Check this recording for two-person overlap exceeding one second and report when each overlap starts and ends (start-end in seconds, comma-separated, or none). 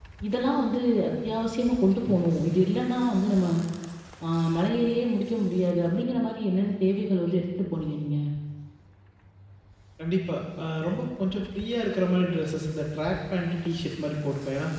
none